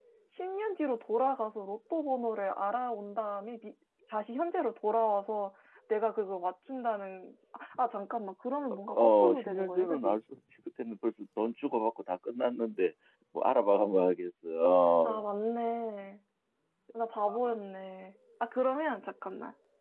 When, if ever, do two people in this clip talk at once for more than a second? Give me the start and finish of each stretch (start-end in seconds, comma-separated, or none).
8.9-10.2